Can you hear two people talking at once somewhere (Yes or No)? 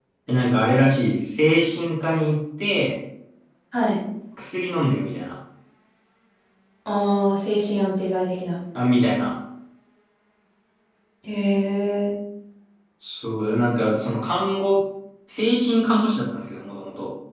No